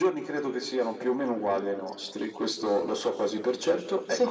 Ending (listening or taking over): listening